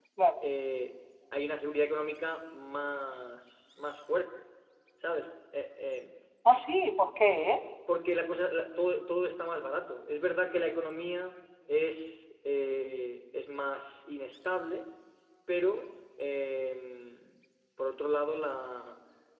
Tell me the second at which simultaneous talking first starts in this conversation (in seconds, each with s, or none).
none